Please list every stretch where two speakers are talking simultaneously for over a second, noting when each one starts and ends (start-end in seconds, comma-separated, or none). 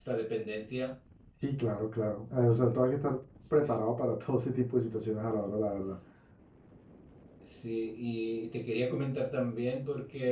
none